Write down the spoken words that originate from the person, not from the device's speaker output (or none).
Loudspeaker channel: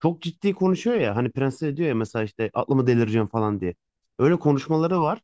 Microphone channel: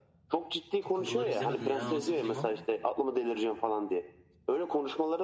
Takıntıları izlemedim ya. Nasıl film o?